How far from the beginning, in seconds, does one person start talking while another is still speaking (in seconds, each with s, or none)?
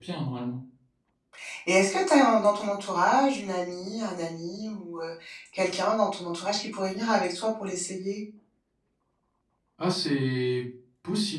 none